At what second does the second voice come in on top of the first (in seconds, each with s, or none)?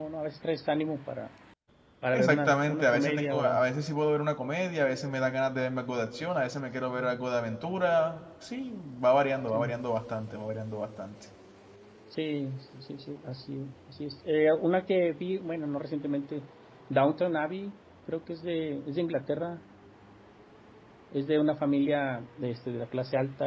2.1 s